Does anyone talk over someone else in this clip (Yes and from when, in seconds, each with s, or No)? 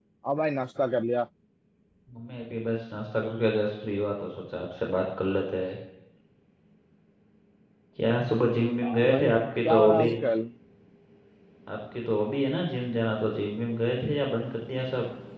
Yes, from 8.8 s